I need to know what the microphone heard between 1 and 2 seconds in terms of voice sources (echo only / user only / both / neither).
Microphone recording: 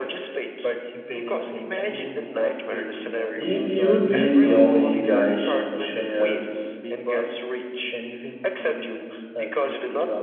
echo only